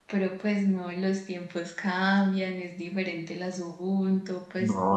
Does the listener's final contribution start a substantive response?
Yes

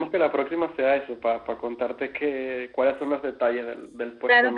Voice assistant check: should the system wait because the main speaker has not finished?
No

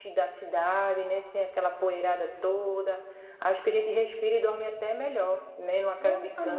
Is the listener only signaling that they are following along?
No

